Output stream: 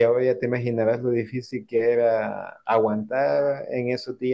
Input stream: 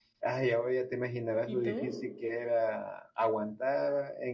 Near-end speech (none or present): present